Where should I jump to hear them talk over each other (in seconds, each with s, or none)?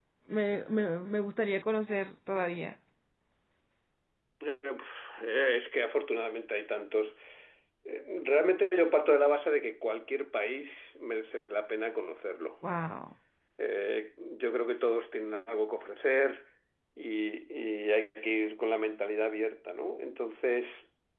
none